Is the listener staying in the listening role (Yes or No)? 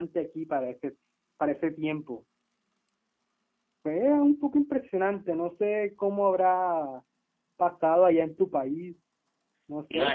No